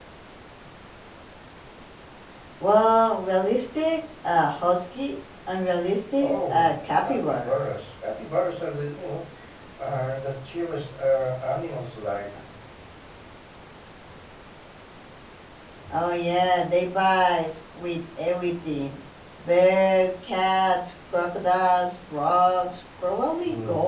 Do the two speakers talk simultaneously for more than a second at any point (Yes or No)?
Yes